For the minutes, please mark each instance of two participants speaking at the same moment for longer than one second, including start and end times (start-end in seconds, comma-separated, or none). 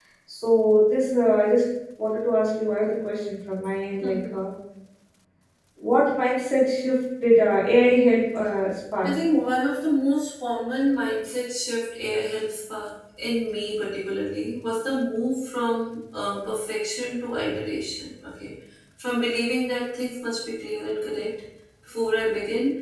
none